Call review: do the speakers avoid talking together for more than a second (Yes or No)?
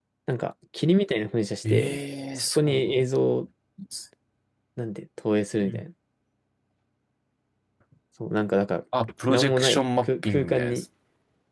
No